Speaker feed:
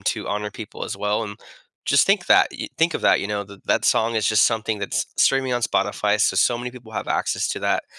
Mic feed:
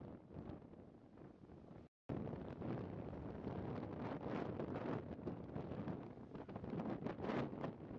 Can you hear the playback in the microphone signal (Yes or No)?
No